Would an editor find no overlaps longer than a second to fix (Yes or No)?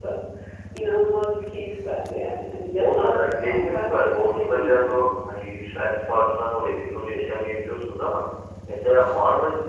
No